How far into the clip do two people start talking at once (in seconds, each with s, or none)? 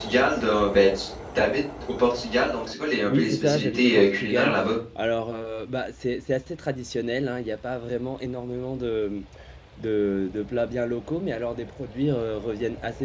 3.1 s